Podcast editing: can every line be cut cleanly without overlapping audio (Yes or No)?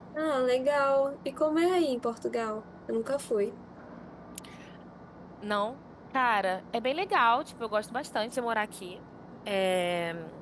Yes